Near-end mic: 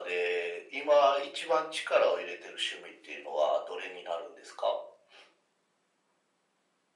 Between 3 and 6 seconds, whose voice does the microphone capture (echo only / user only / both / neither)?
echo only